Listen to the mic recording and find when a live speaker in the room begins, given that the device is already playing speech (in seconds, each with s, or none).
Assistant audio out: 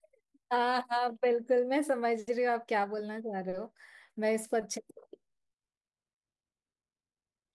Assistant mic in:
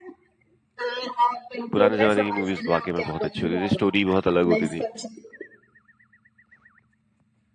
1.7 s